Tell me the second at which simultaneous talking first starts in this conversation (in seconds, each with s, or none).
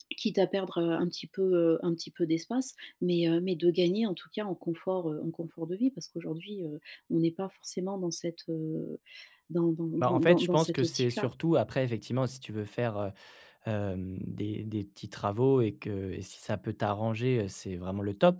10.0 s